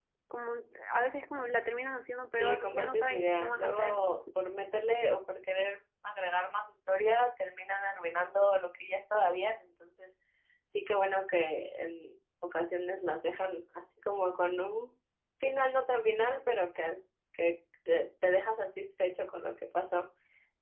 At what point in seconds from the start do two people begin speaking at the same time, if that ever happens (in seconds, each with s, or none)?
2.4 s